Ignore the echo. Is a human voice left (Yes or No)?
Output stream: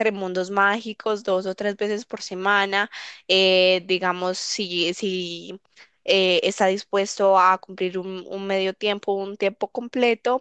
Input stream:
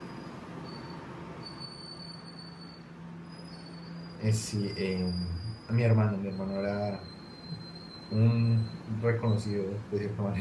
Yes